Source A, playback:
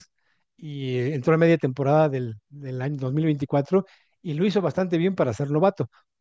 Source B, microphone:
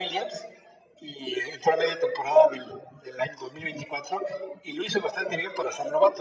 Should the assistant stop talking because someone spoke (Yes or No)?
No